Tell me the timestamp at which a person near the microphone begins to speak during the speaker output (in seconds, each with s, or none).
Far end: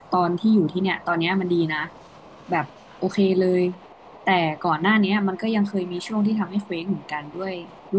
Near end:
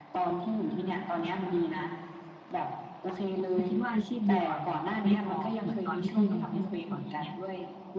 3.5 s